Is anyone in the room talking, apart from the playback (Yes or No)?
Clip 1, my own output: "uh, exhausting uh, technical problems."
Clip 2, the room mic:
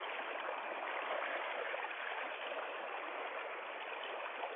No